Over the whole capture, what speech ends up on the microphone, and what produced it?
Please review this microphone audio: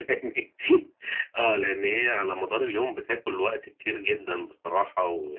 echo only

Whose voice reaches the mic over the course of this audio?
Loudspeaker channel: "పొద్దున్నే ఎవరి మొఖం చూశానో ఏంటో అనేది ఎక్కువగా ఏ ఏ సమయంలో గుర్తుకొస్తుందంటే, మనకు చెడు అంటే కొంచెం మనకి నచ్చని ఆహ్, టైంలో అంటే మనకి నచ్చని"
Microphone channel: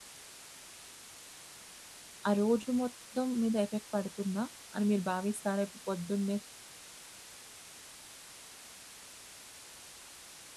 user only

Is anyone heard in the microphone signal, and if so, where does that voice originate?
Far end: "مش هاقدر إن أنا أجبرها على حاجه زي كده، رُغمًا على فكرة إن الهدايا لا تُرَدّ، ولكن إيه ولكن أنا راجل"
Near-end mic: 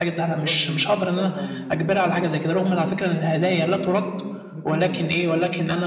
both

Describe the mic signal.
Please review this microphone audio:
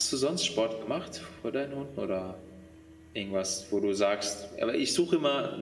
user only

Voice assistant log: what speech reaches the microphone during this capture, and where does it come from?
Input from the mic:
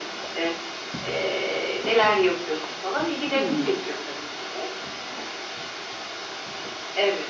both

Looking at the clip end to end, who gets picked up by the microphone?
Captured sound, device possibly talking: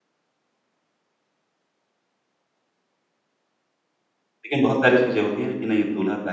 user only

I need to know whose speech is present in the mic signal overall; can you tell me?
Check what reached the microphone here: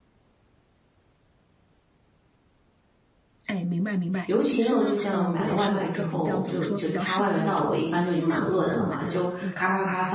both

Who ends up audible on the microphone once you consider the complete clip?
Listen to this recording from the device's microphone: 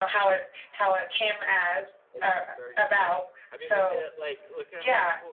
both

